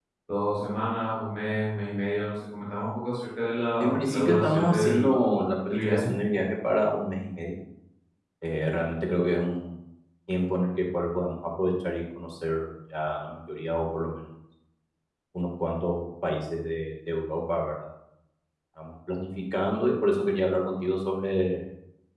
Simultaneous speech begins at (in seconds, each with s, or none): 3.8 s